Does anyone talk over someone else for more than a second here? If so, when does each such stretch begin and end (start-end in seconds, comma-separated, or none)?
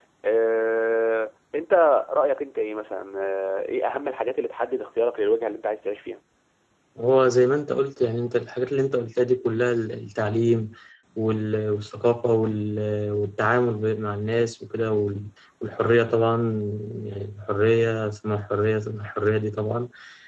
none